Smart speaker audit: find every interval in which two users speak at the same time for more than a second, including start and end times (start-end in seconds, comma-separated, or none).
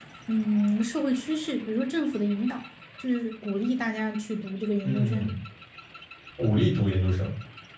none